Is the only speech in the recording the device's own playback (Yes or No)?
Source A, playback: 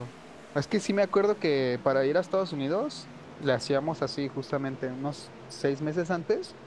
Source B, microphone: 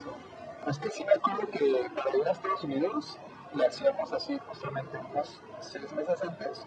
Yes